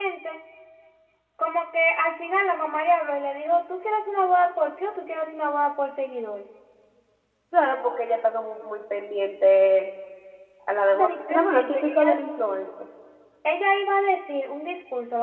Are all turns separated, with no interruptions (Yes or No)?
No